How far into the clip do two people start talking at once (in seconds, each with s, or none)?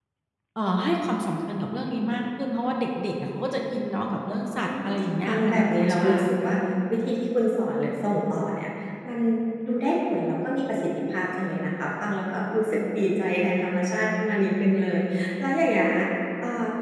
4.6 s